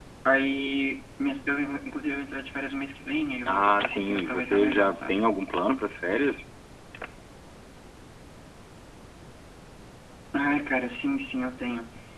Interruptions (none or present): present